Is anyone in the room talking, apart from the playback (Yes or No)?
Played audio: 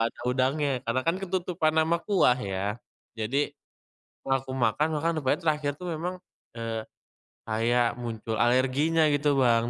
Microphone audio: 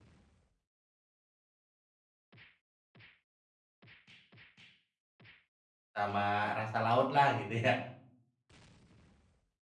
Yes